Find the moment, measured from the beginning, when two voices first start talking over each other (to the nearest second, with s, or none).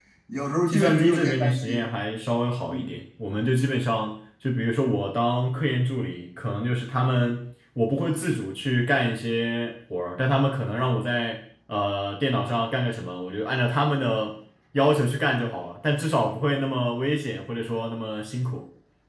1 s